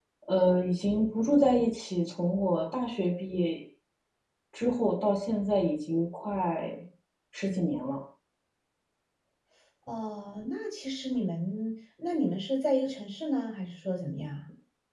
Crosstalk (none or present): none